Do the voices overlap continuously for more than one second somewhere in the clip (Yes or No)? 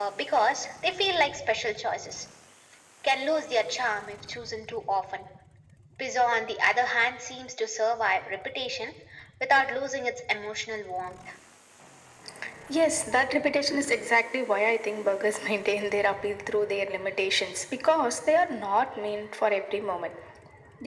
No